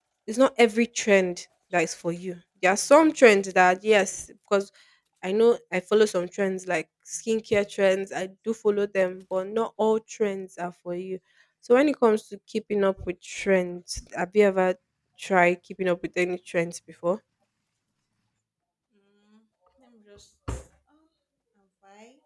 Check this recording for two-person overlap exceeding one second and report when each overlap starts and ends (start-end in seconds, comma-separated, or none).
none